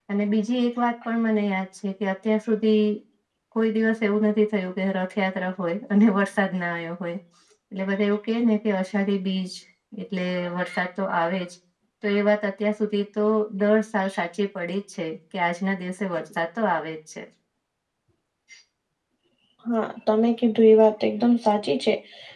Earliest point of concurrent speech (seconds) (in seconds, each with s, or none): none